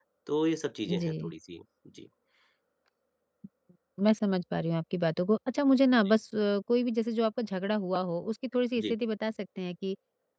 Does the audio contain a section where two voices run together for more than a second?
No

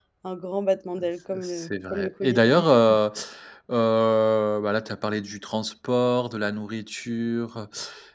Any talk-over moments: Yes, from 1.3 s

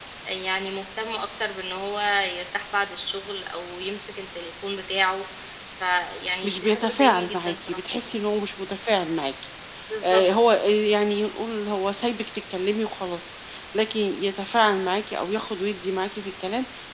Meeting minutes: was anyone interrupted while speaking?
Yes, from 6.4 s

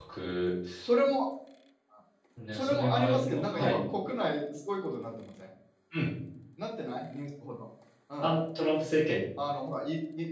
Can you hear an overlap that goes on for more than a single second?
Yes, from 2.5 s

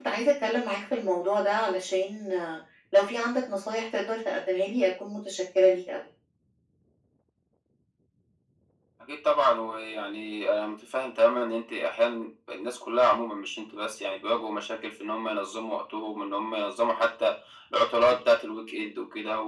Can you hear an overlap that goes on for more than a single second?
No

